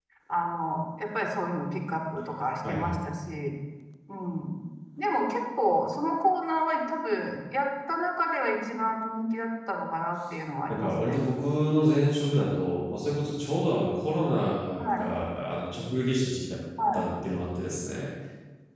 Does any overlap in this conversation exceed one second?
No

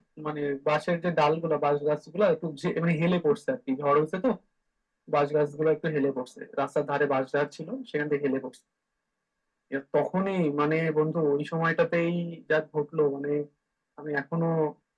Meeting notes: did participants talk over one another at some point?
No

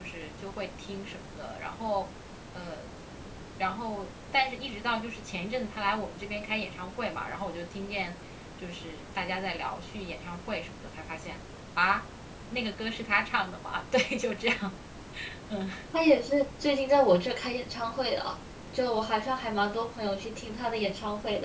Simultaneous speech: No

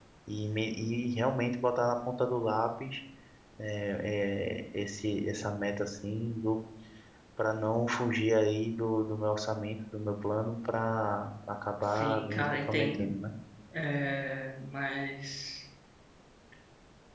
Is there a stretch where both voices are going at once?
Yes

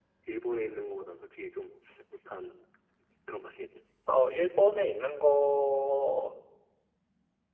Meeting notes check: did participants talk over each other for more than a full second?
No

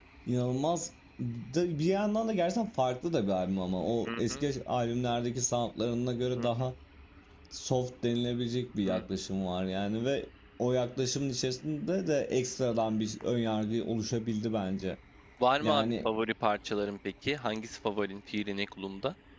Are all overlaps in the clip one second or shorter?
Yes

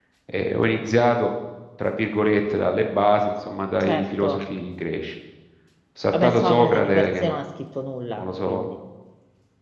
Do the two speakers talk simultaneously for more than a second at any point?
Yes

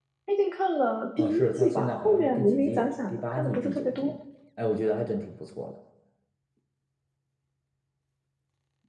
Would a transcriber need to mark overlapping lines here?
Yes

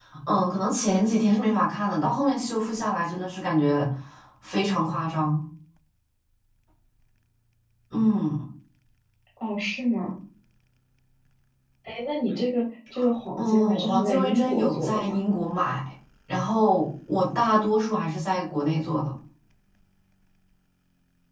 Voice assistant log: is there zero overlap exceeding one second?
No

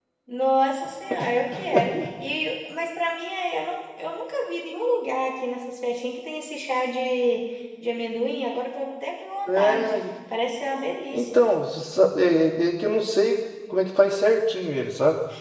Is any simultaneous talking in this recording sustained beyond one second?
No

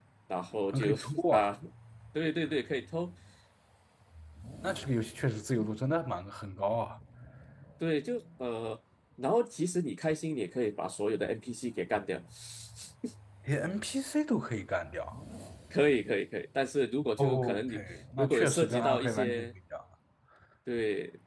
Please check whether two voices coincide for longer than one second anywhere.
Yes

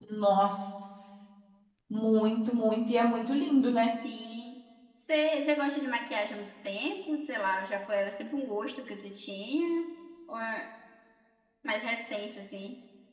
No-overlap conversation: Yes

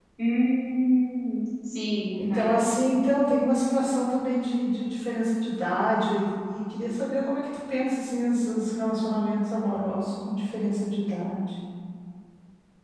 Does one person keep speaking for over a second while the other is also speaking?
No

